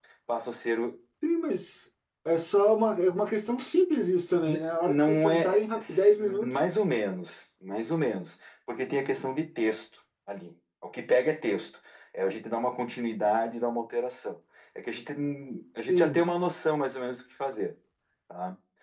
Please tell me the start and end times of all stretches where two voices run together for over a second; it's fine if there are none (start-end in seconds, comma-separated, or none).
4.5-6.5